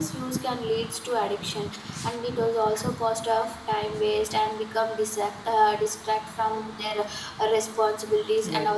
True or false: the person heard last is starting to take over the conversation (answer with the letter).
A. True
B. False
B